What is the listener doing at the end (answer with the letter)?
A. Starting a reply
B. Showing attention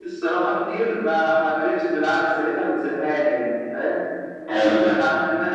B